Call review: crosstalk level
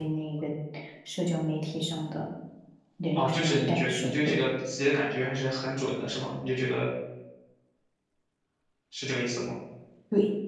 present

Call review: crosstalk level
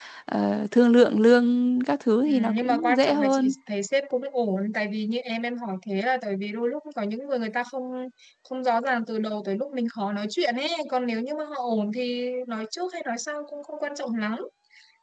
present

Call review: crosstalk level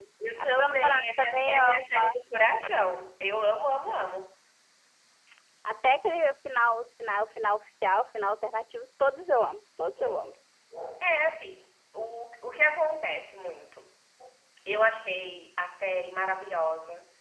present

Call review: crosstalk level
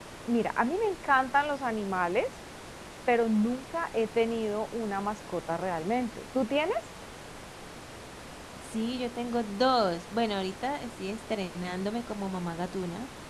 none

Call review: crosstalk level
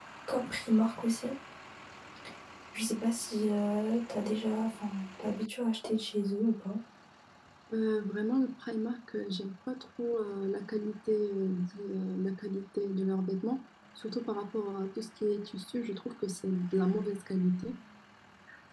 none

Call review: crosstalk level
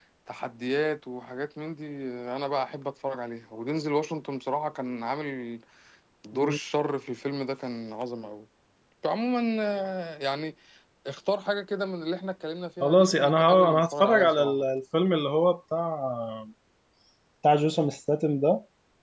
present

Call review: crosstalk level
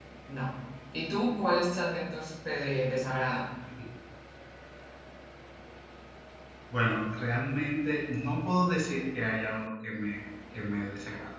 none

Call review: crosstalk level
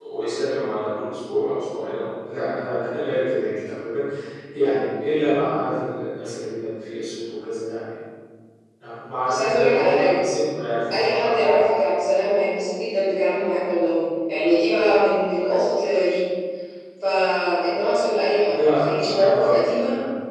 present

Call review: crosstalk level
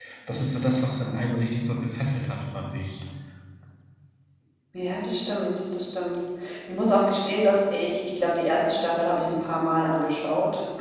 none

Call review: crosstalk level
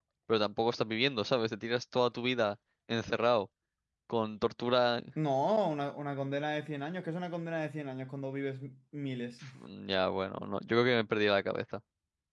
none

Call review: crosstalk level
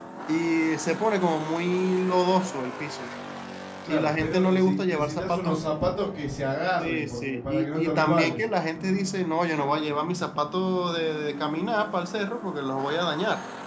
present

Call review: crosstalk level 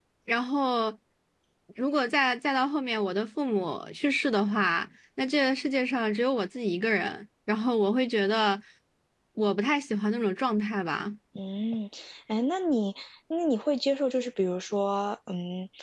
none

